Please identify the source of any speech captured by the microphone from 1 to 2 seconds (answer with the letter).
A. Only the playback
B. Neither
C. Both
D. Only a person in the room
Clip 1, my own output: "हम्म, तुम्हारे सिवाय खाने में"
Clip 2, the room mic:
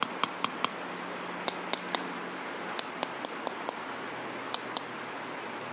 B